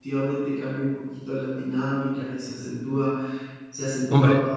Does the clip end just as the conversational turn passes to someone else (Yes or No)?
No